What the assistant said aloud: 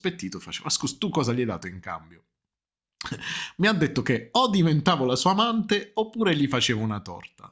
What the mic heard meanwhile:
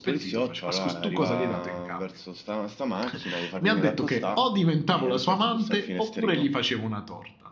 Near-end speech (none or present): present